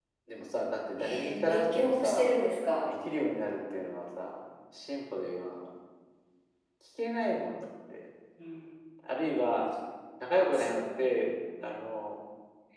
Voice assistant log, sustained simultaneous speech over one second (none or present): present